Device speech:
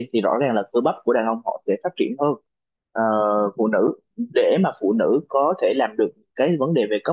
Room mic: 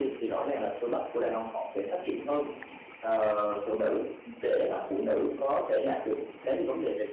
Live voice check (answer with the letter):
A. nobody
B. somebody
A